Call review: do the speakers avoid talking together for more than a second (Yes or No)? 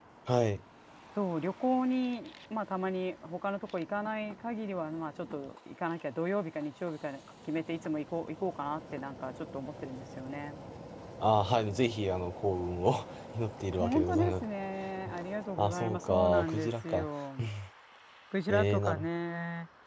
No